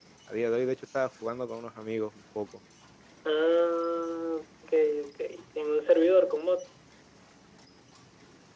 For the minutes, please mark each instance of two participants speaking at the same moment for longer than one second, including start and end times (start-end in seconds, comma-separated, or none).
none